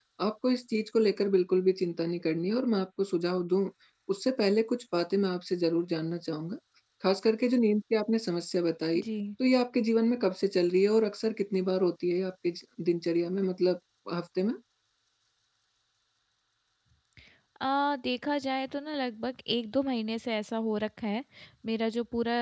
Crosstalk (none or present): none